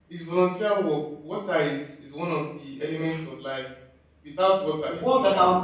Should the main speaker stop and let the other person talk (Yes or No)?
Yes